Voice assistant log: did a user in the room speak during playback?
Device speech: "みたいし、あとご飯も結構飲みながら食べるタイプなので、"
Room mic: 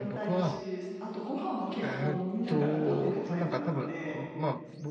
Yes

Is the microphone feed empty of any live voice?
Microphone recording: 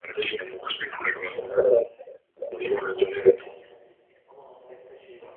No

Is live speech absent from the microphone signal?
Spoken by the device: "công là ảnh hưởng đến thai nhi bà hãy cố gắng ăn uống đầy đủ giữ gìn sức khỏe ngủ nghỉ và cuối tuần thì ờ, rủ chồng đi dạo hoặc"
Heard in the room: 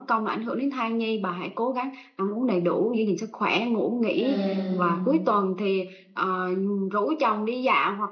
No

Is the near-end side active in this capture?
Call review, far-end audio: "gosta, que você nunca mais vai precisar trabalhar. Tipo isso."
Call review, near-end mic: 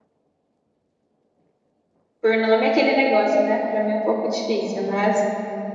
Yes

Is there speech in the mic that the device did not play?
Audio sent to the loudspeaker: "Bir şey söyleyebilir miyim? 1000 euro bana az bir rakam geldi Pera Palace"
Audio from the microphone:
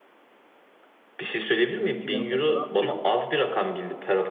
Yes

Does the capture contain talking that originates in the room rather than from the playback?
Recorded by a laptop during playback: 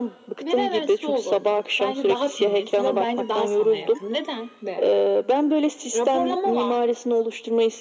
No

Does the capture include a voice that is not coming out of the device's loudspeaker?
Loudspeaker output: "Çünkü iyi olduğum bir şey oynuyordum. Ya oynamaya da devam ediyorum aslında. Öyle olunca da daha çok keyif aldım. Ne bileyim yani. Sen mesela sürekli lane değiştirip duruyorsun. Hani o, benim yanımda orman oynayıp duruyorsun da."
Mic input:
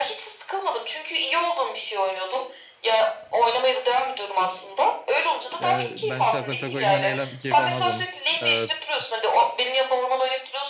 Yes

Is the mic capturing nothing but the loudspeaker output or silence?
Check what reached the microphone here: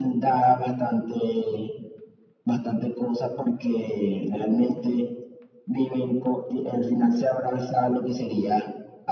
Yes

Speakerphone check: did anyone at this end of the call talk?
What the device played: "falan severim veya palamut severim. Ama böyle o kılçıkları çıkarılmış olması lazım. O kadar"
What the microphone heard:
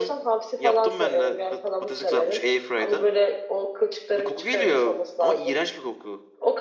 Yes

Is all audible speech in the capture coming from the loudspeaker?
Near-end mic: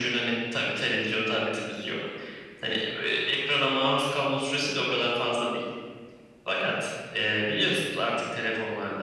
Yes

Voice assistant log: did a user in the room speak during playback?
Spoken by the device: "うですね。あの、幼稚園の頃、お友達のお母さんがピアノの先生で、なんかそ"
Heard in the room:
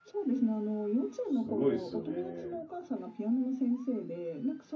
Yes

